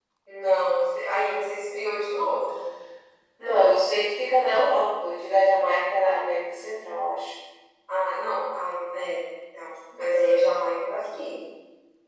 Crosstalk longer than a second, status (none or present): none